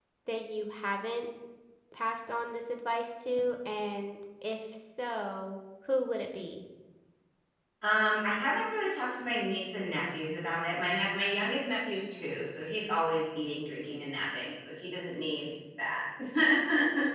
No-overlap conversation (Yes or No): Yes